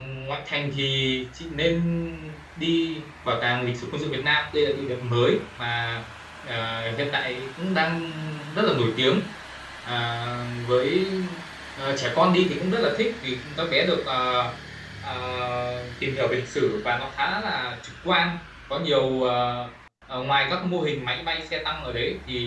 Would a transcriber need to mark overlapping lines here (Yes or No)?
No